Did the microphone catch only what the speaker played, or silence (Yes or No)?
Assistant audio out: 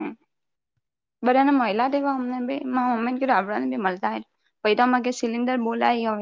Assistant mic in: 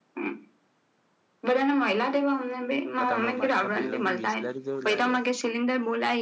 No